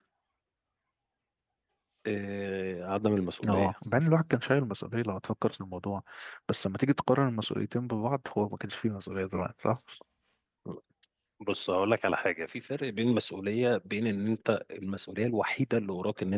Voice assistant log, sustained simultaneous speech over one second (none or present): none